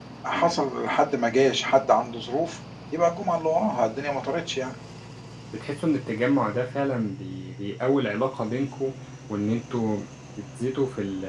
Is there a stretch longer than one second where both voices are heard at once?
No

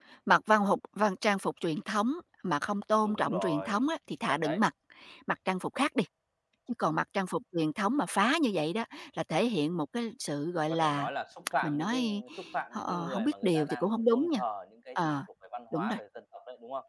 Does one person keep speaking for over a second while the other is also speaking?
Yes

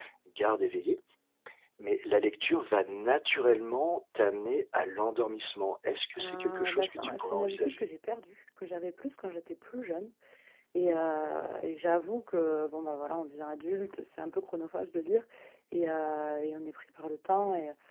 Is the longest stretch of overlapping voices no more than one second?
No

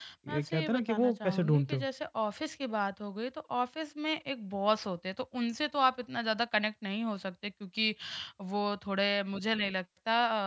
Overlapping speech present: Yes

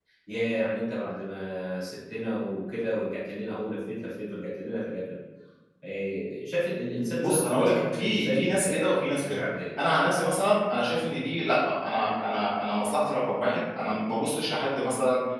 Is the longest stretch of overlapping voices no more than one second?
No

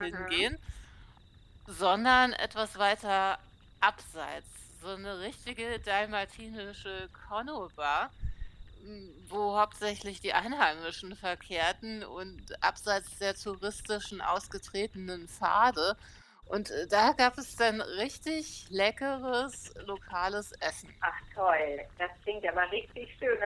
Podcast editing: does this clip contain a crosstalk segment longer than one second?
No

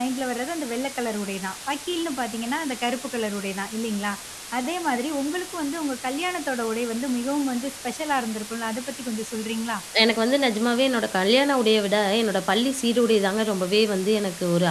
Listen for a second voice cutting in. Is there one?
No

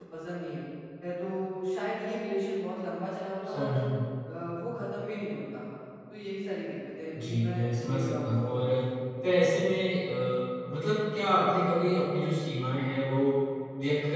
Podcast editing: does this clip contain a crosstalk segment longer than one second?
Yes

